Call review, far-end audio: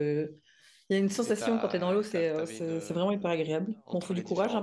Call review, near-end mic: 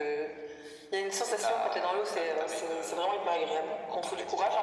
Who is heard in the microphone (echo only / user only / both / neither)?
echo only